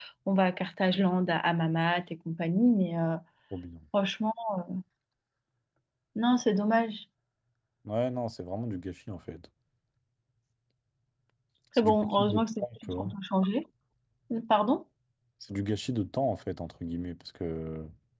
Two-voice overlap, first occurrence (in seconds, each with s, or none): 11.8 s